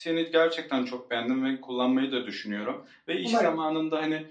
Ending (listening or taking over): listening